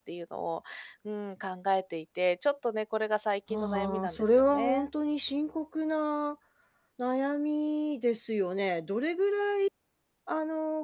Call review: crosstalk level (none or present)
present